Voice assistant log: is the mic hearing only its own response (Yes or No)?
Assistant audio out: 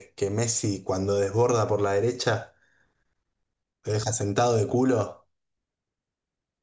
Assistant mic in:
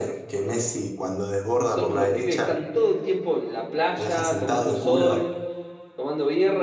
No